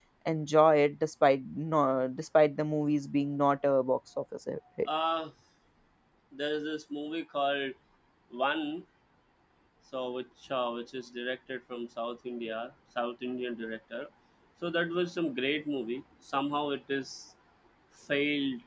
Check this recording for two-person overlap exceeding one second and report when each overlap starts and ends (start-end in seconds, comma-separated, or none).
none